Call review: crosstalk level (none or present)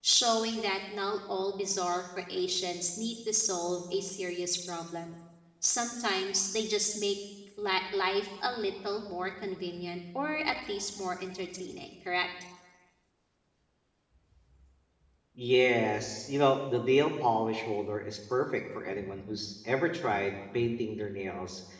none